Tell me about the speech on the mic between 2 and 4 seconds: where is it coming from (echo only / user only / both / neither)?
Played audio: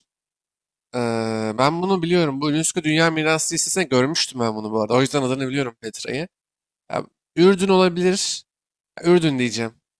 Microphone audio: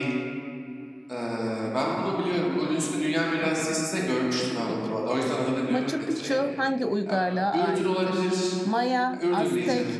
both